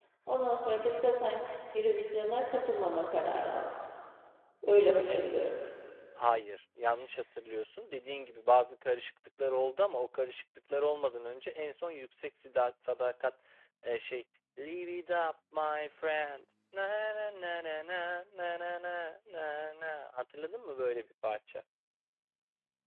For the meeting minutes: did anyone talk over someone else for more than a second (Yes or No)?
No